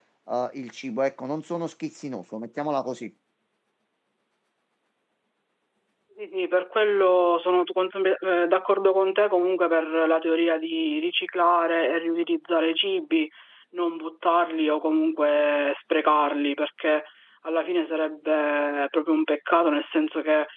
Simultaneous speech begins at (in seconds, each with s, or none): none